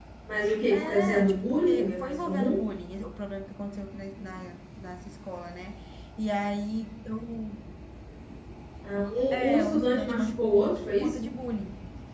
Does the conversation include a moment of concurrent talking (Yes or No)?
Yes